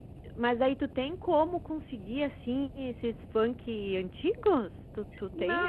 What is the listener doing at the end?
taking over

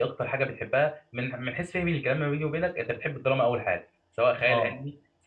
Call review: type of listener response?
taking over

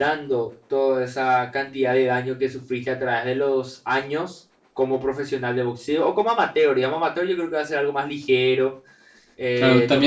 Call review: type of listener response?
taking over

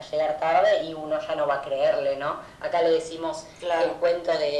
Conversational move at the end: listening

